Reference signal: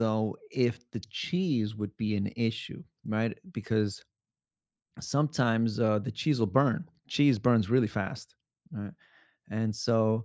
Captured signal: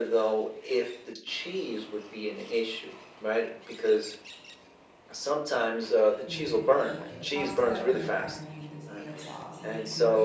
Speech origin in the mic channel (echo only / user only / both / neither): both